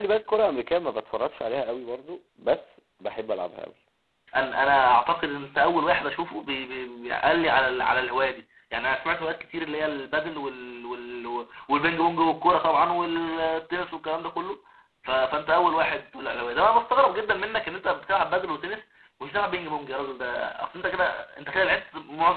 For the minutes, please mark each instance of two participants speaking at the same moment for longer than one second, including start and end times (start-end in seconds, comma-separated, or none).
none